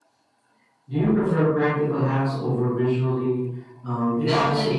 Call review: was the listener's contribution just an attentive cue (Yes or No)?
No